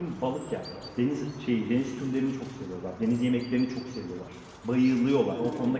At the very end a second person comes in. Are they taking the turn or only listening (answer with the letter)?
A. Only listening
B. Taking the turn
A